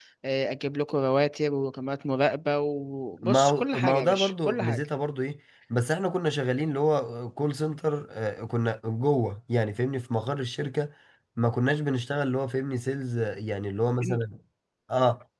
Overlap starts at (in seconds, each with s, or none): 3.2 s